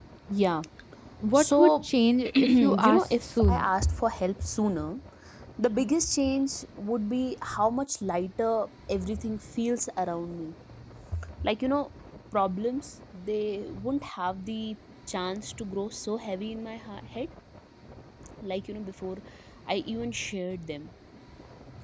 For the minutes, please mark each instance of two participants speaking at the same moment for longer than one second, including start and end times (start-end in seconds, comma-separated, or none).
2.3-3.7